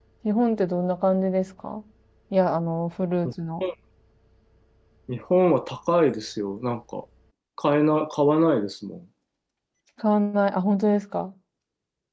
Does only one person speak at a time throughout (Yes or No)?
Yes